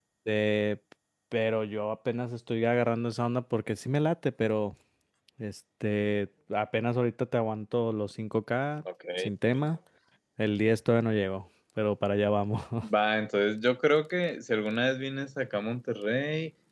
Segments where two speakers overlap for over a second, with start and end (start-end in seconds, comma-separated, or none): none